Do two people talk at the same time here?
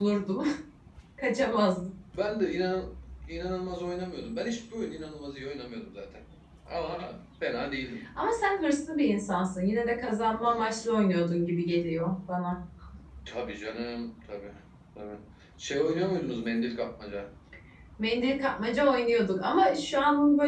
No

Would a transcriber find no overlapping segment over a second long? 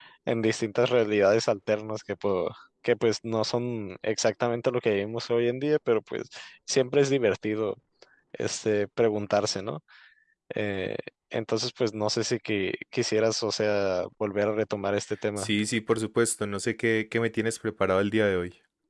Yes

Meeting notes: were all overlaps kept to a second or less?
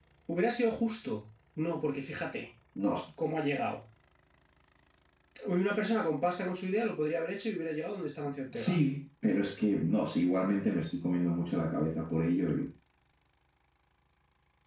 Yes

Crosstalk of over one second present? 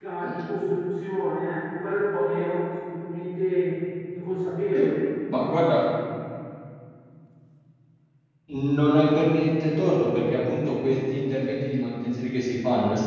No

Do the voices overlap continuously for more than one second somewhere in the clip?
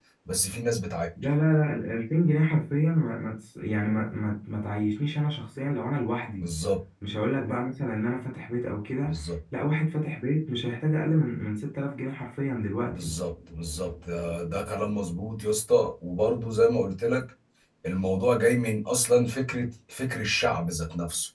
No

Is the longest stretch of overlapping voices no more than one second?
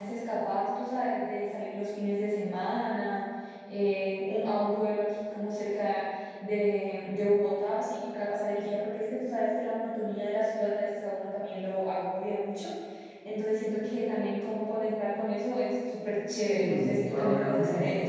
No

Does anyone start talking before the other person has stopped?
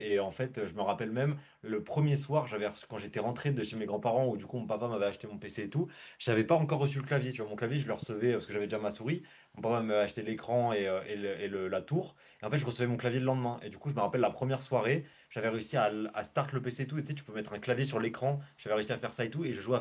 No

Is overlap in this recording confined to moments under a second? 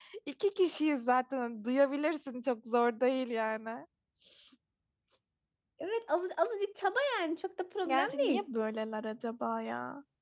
Yes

